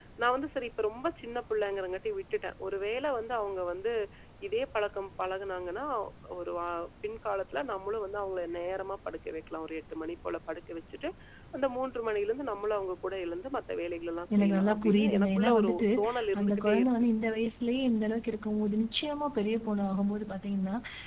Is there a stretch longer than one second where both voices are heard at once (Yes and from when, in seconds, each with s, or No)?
Yes, from 14.3 s